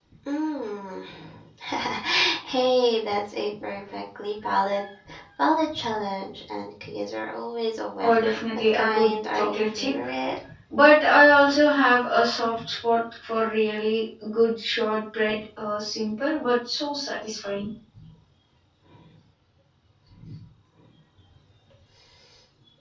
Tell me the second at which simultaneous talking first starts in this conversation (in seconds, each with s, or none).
8.0 s